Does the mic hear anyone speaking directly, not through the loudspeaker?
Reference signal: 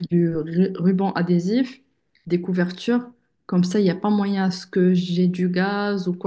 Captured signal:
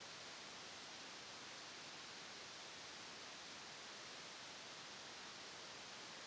No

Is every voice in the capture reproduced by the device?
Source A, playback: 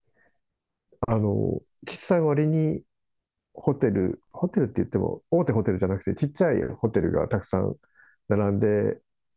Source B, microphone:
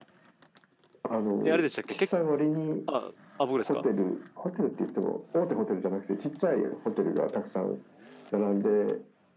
No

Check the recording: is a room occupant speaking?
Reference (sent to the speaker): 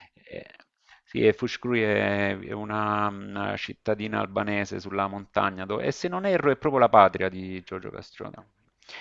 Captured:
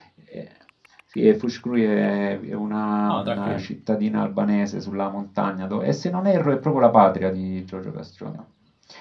Yes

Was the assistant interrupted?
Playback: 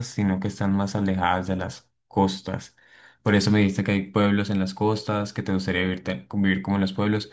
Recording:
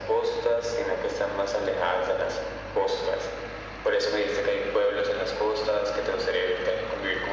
No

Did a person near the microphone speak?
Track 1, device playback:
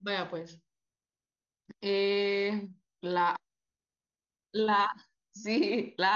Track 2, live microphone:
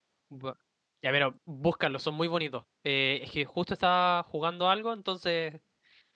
Yes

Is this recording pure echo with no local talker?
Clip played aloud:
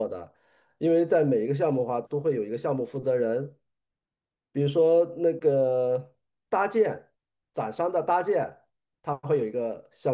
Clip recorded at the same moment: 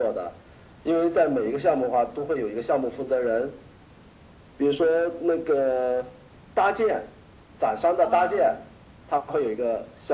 No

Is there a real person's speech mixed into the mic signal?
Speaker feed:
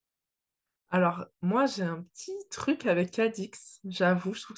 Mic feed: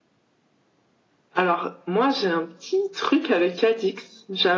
No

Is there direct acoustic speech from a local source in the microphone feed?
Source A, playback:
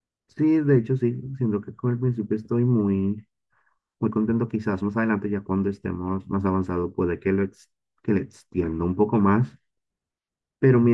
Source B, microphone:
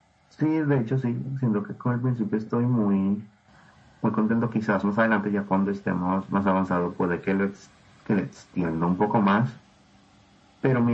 No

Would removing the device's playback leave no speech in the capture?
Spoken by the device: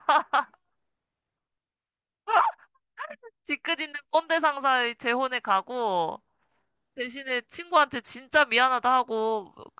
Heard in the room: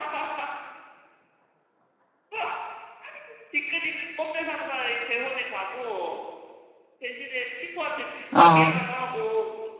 No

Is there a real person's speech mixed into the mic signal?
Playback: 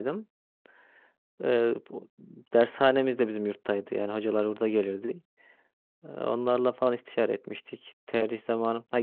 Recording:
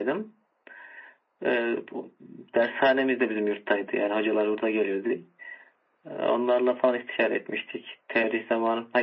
No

